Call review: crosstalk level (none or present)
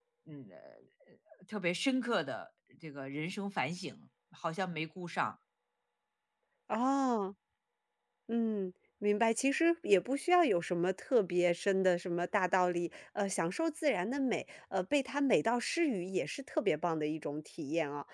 none